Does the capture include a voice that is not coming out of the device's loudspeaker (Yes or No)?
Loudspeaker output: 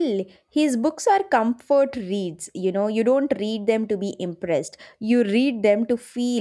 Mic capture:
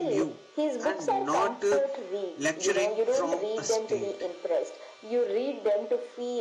Yes